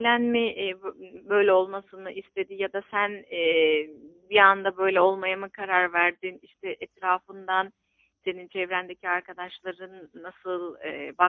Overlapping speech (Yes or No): No